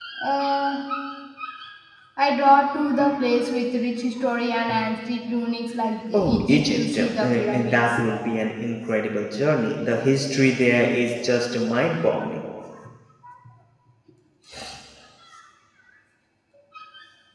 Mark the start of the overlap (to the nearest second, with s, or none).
6 s